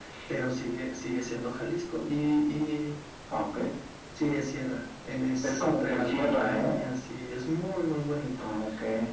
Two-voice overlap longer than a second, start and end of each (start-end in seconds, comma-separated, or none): 5.4-6.8